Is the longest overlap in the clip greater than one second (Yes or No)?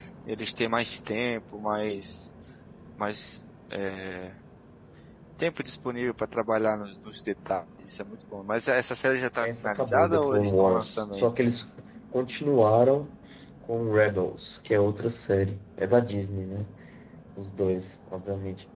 Yes